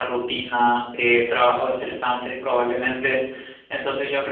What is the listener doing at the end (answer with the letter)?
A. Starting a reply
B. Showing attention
B